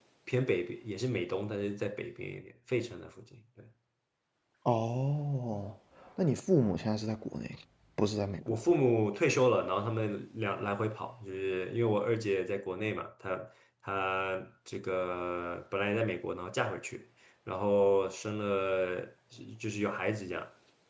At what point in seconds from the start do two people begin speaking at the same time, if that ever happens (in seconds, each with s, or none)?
none